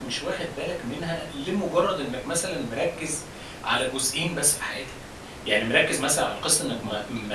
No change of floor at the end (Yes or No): Yes